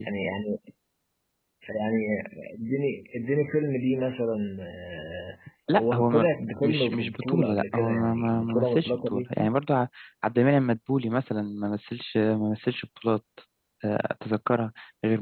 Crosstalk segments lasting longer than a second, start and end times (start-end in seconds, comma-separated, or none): 6.6-9.2